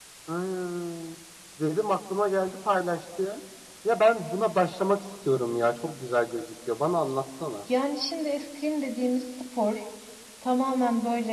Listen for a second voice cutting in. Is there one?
No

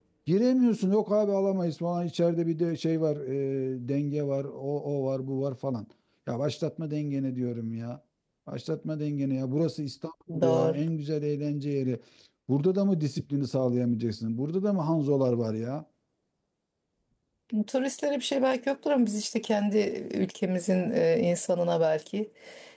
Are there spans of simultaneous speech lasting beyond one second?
No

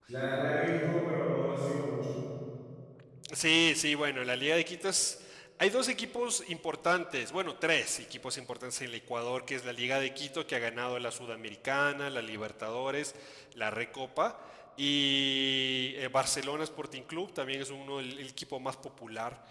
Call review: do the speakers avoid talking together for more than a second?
Yes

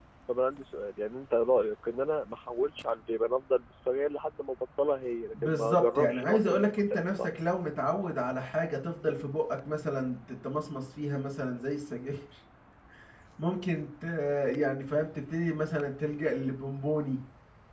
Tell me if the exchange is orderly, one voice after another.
No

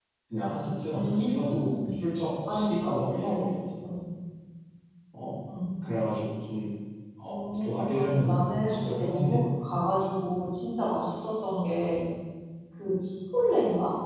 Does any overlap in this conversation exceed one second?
Yes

